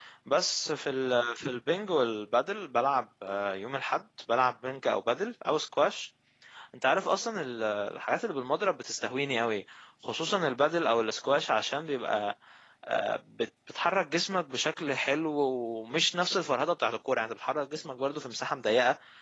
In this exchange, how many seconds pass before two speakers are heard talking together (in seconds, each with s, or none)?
none